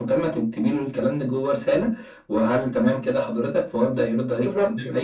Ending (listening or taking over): listening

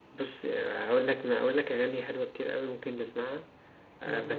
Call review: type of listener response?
listening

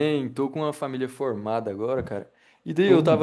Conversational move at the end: listening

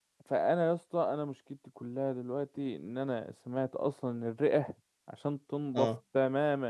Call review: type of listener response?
listening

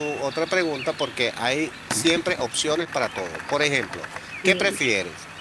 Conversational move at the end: listening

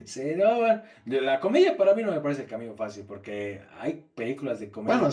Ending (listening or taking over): listening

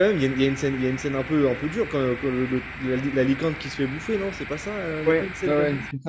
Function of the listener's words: taking over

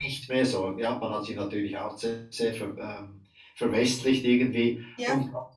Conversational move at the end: listening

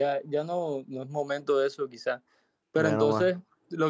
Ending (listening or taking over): listening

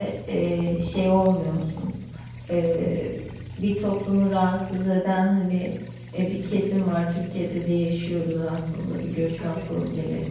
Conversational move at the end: listening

